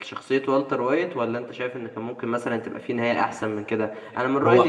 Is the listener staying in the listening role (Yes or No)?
Yes